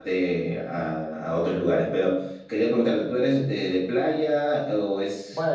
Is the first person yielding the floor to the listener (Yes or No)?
Yes